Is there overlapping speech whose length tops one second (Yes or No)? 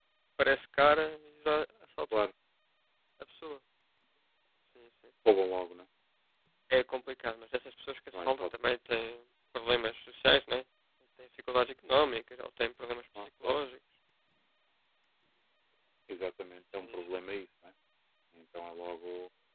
No